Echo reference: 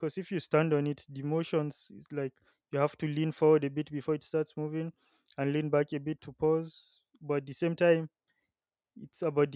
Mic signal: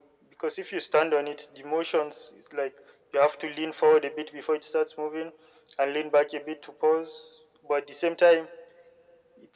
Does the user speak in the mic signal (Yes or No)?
No